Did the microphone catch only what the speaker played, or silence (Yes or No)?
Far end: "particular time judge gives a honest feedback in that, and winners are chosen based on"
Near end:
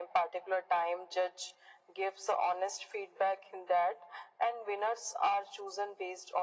Yes